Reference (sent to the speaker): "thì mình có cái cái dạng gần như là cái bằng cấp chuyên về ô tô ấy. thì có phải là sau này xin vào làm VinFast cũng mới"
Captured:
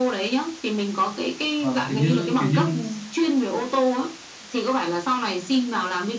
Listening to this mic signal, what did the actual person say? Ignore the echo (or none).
vâng kiểu như kiểu như